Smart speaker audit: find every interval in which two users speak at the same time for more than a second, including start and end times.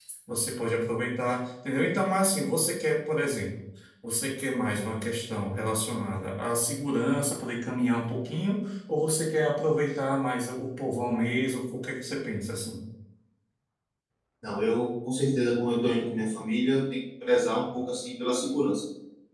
none

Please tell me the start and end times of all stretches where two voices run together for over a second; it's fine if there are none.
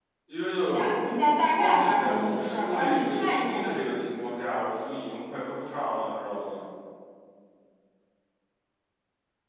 1.6-3.7

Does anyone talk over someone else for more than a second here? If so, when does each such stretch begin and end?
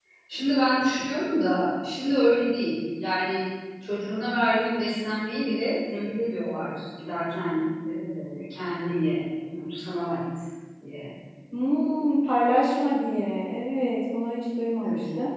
none

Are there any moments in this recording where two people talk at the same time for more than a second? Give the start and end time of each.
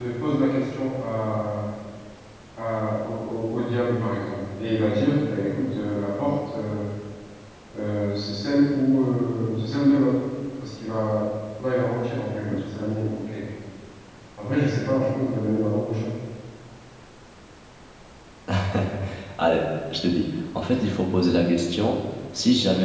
none

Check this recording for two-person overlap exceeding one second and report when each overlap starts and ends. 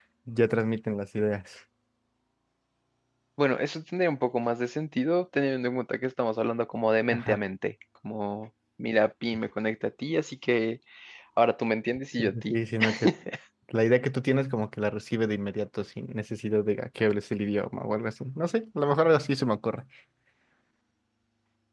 none

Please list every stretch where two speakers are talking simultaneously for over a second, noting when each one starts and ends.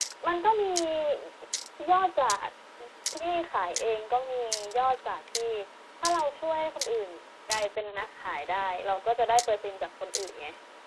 none

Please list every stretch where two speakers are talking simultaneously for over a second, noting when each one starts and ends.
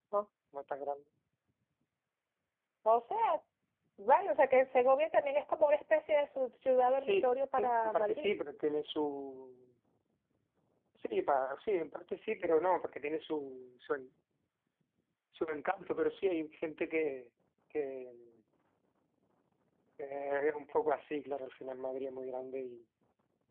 6.9-8.3

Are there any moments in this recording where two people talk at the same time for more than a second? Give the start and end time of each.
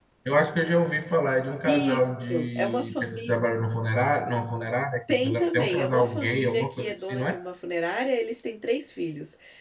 1.6-3.4, 5.1-7.4

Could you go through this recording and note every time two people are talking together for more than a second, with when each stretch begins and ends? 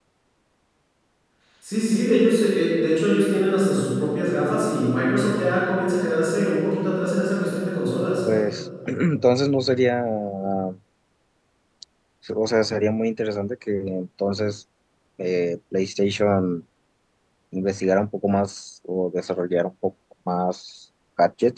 none

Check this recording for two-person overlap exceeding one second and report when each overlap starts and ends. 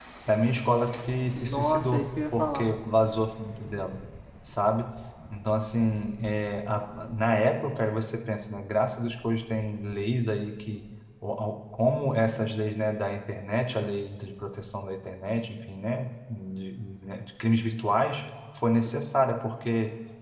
1.3-2.7

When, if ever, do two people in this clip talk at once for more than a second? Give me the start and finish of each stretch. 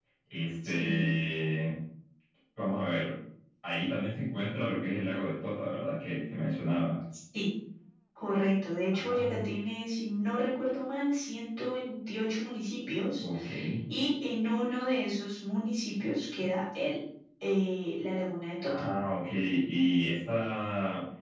none

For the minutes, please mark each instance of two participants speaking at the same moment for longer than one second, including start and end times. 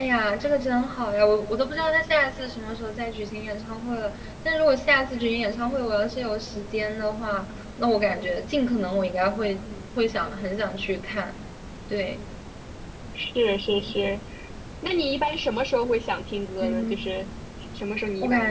none

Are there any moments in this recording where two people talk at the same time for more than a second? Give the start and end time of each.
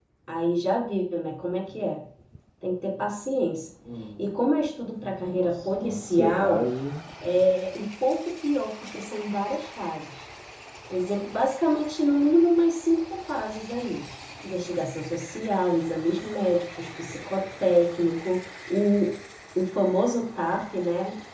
5.3-6.7

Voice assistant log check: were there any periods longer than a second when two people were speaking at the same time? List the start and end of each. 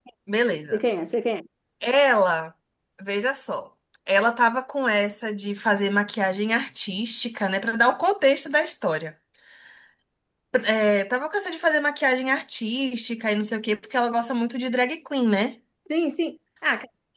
none

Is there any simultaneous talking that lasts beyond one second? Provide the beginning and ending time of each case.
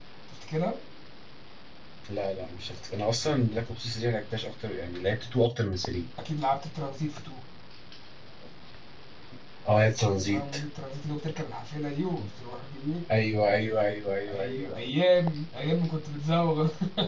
none

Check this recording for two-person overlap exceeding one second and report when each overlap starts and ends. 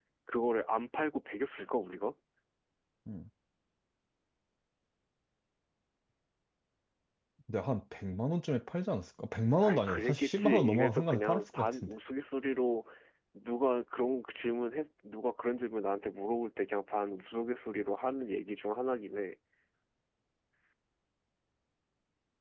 9.6-11.9

